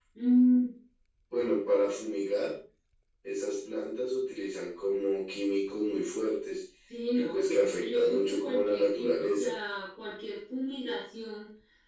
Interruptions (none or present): present